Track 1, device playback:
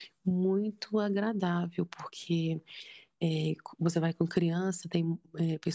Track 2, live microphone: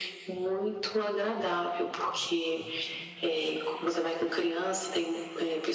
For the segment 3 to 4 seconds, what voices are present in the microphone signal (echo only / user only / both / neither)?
echo only